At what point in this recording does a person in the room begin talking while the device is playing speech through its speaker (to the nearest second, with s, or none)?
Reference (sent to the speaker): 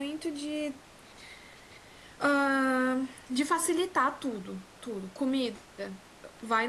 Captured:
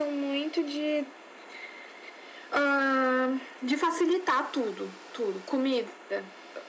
none